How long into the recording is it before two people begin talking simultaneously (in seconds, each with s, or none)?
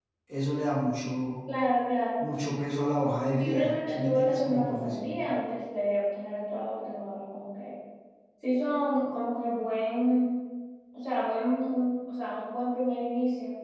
3.3 s